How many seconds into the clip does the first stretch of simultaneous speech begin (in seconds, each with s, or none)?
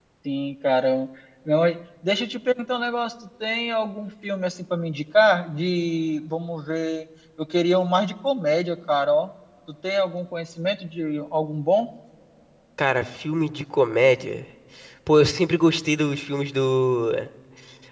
none